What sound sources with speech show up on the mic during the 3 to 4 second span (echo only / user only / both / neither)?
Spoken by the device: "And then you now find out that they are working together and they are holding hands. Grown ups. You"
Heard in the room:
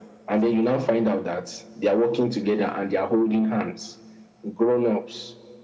echo only